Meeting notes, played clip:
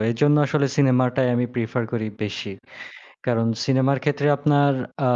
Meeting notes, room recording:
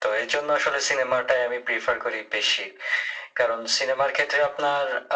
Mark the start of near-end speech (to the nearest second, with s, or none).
none